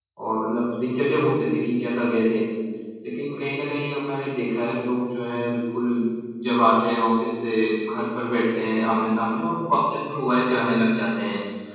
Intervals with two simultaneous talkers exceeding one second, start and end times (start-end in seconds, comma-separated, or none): none